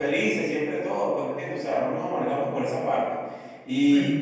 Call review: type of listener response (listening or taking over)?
listening